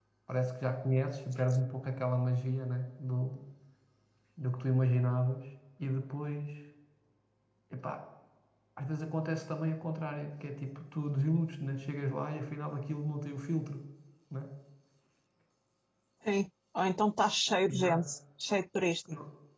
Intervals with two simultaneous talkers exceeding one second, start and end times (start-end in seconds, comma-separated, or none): none